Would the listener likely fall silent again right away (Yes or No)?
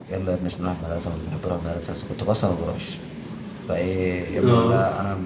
Yes